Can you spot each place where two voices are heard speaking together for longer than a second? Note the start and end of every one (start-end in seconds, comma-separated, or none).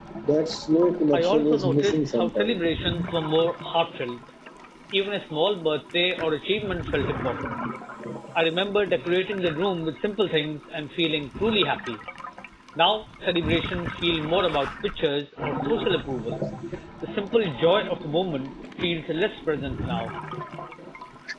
1.1-2.5